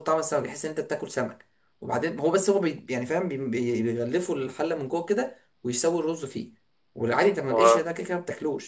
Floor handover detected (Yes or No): No